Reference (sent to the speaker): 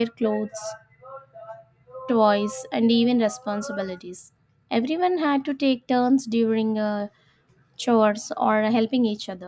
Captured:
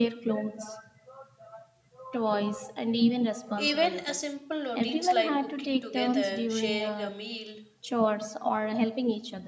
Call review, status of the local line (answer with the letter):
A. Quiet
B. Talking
B